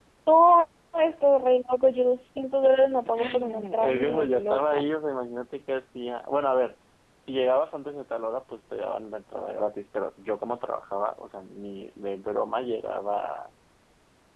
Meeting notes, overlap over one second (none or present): present